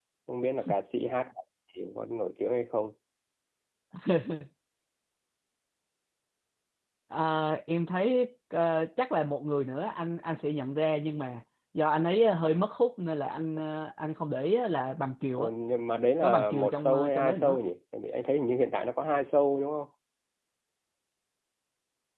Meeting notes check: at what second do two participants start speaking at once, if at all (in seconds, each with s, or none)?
16.2 s